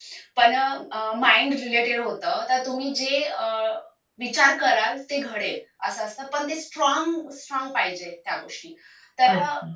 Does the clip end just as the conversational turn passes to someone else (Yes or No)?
No